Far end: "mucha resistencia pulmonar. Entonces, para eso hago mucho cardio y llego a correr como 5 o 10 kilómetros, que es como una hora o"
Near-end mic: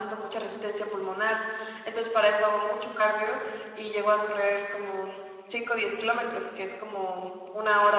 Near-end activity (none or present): none